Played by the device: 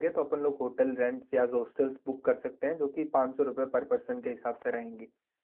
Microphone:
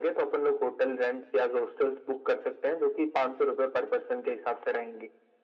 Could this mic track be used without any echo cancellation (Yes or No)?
No